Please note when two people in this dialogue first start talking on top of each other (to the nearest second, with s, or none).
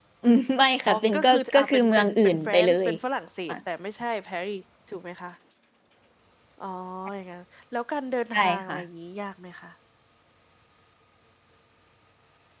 1 s